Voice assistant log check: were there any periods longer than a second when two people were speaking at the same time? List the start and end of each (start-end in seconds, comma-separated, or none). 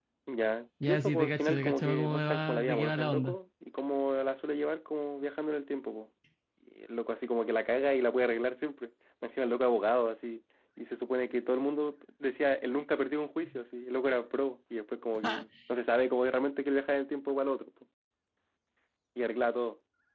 0.8-3.4